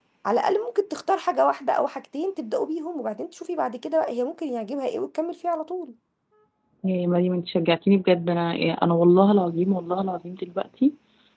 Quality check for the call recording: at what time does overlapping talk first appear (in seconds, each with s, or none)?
none